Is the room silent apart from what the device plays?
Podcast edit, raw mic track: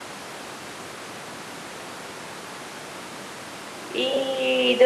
No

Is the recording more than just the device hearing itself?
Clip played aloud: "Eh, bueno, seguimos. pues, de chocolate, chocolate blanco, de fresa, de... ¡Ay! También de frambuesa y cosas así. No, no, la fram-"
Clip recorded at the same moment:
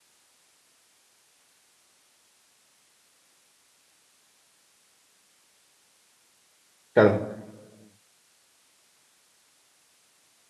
Yes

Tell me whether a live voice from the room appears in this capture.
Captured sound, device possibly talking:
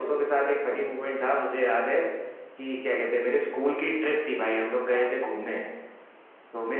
Yes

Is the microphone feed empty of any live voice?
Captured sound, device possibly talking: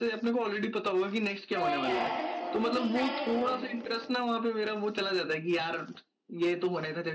No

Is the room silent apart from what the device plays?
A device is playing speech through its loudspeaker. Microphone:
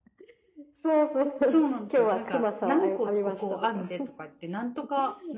No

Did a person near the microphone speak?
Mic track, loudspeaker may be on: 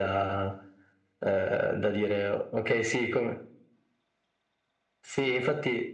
No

